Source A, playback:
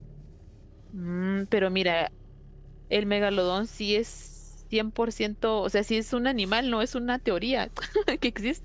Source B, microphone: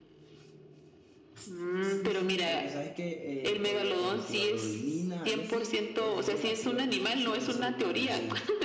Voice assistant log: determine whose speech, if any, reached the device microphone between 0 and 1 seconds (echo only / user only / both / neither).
neither